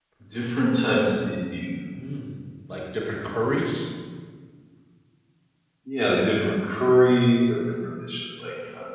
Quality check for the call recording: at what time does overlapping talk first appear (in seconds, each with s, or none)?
none